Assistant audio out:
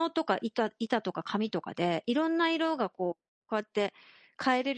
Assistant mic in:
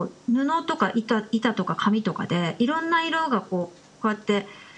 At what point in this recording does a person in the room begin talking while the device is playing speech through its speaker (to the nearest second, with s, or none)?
none